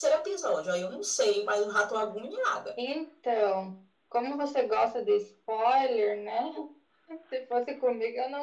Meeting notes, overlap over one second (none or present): none